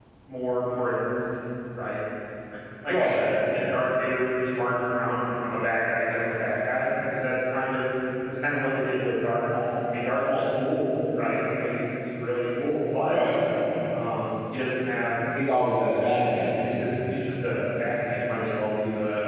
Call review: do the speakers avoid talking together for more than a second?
Yes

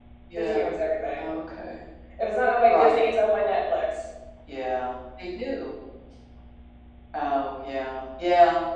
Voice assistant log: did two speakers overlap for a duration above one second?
No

